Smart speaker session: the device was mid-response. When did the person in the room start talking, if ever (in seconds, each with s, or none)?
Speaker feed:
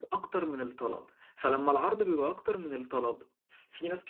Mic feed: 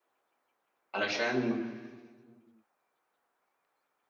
0.9 s